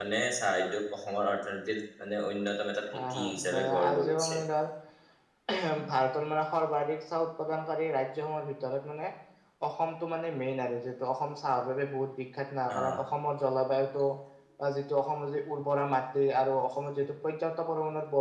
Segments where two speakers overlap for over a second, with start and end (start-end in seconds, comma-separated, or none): 2.9-4.3